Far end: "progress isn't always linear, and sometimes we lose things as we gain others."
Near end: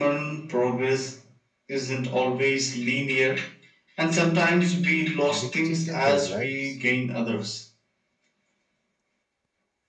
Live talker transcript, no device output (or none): dictated their lives.